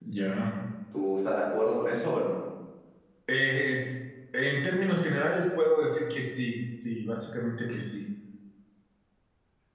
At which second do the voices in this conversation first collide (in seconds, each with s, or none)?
none